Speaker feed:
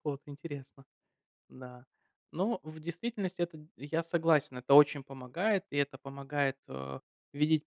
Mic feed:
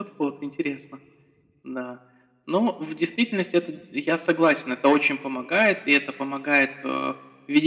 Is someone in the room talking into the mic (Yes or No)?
No